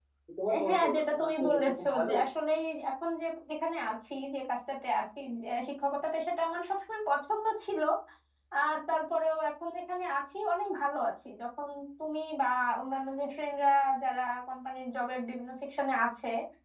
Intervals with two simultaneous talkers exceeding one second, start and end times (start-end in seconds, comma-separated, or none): 0.7-2.1